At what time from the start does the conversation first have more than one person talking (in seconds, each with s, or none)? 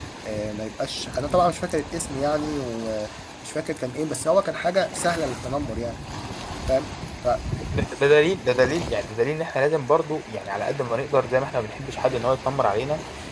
none